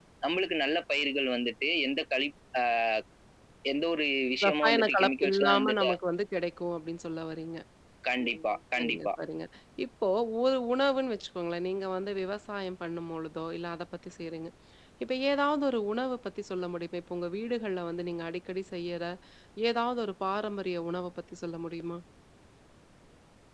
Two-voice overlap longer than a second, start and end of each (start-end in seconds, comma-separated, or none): 4.4-5.9